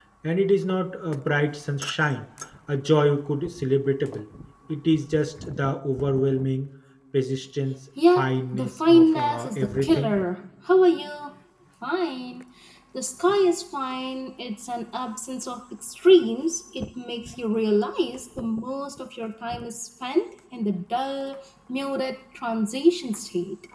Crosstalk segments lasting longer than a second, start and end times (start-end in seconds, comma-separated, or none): 8.1-10.1